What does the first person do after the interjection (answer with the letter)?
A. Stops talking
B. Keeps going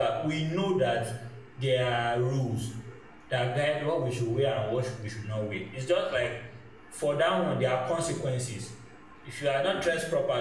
B